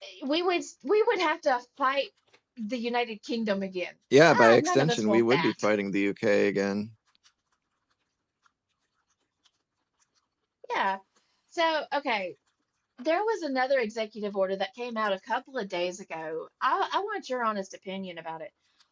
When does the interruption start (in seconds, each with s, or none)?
4.1 s